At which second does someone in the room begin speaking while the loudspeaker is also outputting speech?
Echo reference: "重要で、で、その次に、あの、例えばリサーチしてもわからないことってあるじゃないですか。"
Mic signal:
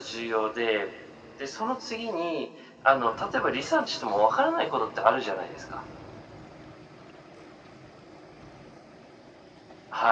none

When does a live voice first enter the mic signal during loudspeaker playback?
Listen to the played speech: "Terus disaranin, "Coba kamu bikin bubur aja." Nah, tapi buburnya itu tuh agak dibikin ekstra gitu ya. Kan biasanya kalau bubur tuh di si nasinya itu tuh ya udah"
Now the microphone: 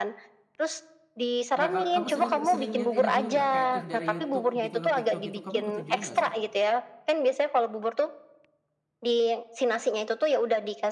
1.6 s

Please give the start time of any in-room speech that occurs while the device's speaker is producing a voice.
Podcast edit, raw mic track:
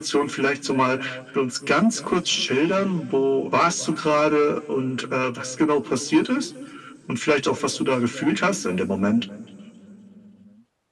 none

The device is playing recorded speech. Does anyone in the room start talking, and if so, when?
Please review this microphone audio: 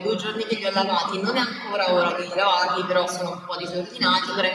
none

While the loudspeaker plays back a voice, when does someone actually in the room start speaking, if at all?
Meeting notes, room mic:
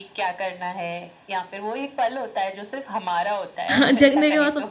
3.7 s

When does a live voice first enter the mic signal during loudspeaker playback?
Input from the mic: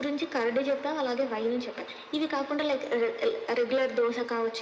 none

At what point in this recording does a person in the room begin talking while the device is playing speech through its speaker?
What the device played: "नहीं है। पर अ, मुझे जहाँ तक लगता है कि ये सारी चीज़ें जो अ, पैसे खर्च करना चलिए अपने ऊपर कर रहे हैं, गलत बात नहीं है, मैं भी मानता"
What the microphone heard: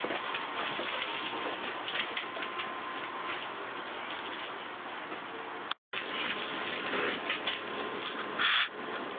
none

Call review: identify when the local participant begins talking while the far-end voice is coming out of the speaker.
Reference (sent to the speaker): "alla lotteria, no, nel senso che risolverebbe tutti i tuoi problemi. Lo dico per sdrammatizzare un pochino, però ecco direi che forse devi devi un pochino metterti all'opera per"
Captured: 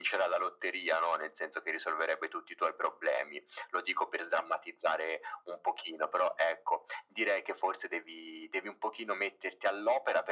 none

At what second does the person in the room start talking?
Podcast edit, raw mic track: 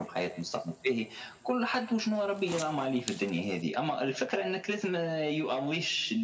none

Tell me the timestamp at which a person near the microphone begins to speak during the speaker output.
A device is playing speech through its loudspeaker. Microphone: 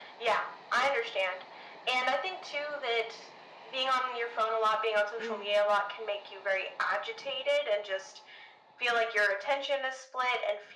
5.2 s

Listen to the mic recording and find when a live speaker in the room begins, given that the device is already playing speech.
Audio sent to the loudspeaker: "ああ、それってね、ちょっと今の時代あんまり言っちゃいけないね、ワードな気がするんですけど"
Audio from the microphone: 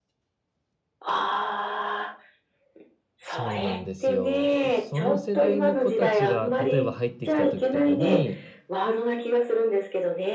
3.2 s

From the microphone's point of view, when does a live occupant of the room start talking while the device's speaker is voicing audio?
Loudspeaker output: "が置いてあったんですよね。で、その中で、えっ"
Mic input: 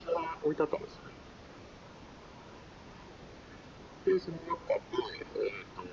none

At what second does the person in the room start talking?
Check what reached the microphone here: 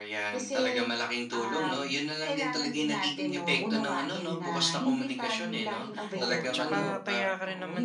6.1 s

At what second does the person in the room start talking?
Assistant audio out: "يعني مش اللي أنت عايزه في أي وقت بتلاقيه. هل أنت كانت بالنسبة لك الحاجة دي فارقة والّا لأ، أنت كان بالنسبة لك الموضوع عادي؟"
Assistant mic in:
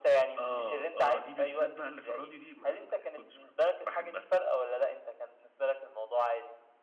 0.4 s

